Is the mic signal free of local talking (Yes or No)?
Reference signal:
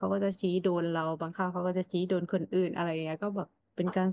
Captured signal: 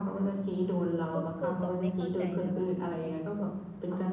No